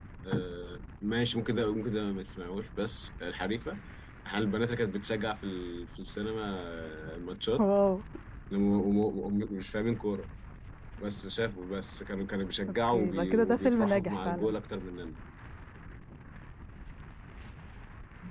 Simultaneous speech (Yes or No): Yes